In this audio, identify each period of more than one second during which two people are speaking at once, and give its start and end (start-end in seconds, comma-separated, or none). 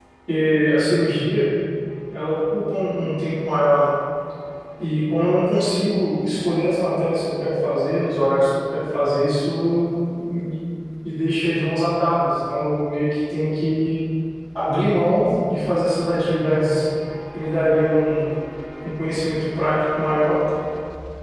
none